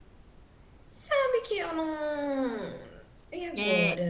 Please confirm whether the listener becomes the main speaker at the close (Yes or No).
Yes